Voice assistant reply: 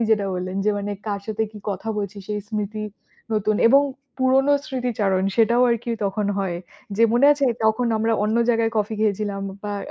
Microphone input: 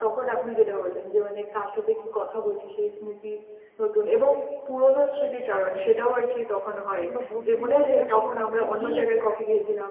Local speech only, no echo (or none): কিংবা বন্ধু মহলের আসলে কাউকে নিয়ে যাই।